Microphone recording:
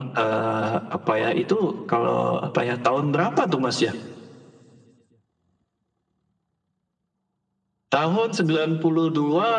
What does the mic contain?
echo only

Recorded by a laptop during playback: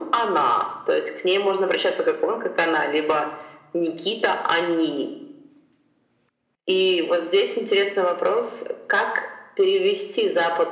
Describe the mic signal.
echo only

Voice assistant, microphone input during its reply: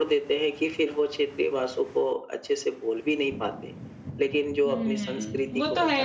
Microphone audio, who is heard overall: both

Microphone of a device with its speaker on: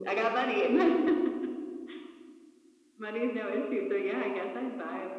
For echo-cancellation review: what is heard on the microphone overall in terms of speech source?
echo only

